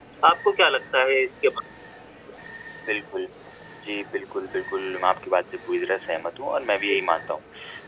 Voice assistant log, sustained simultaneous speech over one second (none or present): none